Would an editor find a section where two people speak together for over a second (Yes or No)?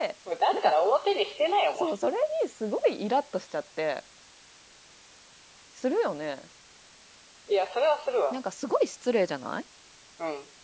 No